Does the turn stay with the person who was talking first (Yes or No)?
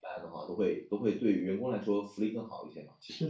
No